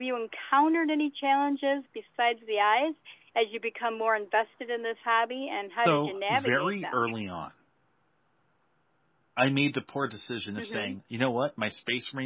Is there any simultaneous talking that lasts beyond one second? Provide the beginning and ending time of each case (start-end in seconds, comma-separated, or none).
5.8-7.0